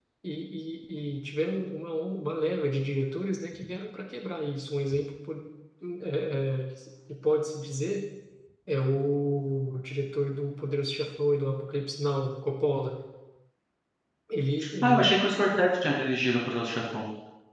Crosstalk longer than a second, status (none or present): none